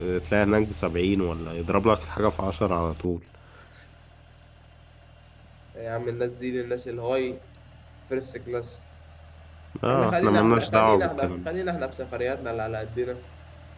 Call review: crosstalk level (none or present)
present